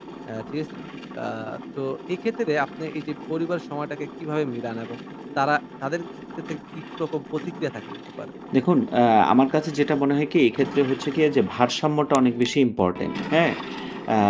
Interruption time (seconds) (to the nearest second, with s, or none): none